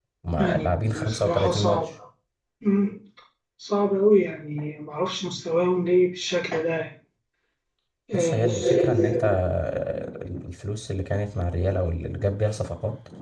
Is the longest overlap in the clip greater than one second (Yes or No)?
Yes